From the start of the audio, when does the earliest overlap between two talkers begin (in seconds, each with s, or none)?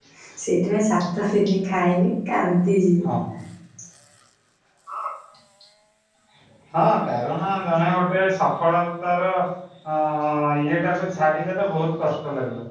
none